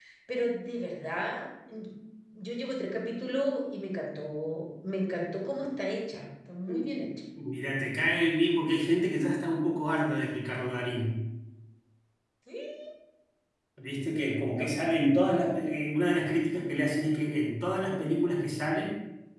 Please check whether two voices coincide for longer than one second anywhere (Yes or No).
No